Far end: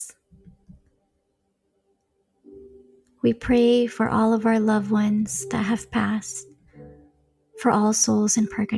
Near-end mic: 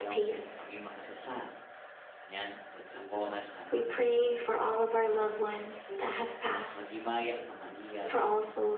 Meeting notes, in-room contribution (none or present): present